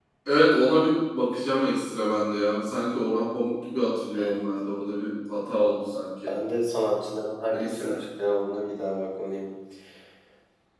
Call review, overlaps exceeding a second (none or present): none